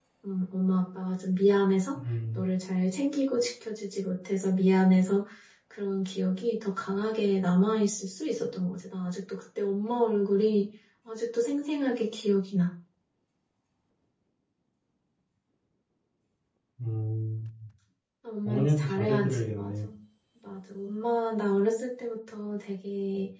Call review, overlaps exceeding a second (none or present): present